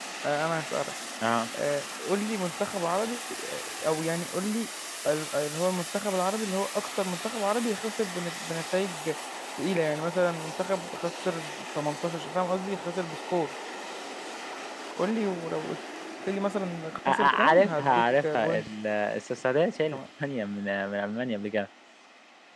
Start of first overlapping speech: 17.1 s

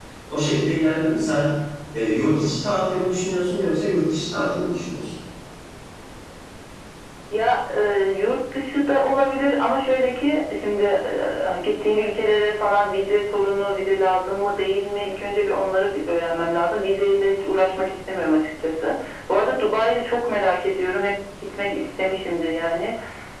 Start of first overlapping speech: none

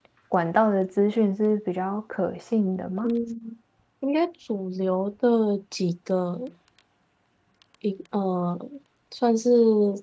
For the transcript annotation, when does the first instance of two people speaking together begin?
none

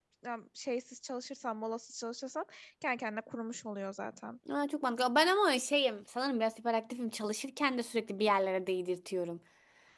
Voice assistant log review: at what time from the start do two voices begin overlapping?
none

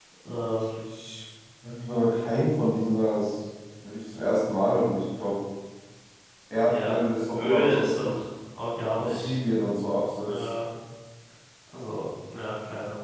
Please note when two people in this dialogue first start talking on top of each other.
6.5 s

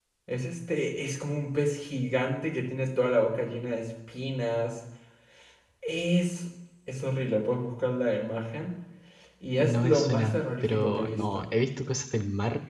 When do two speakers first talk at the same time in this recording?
9.6 s

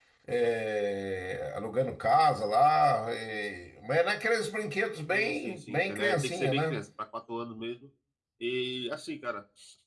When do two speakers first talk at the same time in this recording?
5.1 s

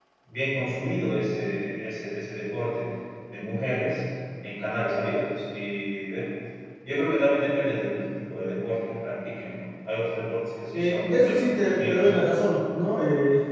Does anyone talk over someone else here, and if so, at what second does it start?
10.7 s

